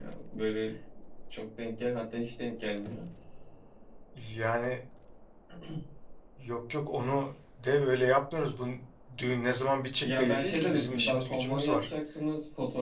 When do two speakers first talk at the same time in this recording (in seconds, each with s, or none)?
10.0 s